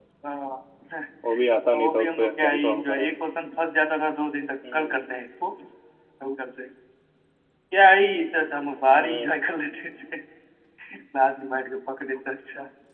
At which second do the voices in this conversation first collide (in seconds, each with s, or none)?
1.7 s